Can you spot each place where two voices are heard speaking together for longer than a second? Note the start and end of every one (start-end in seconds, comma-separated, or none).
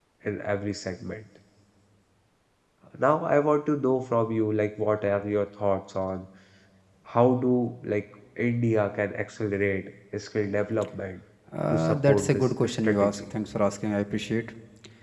11.7-13.3